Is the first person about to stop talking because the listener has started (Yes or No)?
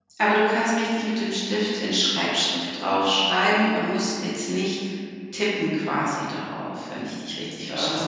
Yes